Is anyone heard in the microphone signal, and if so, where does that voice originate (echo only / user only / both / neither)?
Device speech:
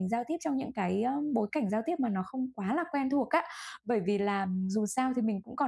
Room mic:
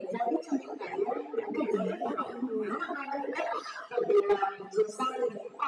both